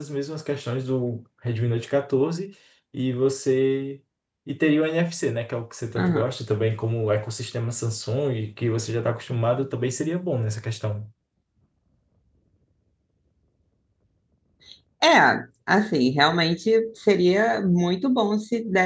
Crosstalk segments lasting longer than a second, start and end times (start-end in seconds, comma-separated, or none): none